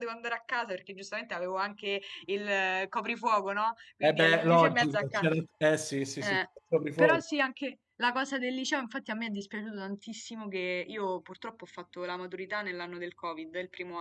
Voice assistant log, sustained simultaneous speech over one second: present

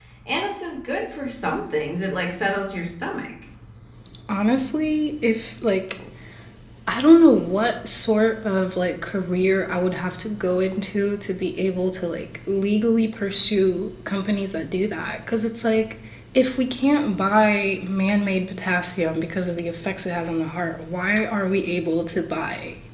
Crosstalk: none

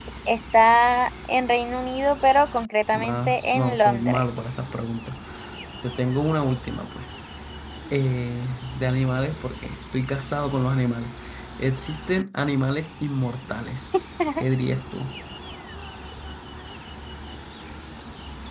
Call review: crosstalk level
present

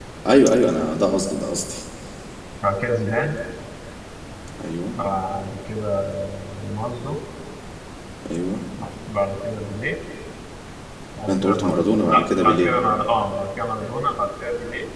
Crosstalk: present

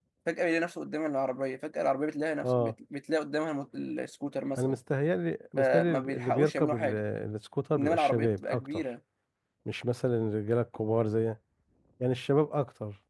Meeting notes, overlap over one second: present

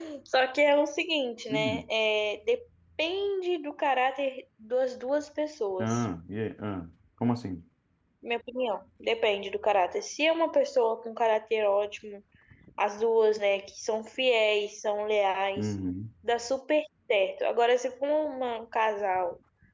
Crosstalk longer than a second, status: none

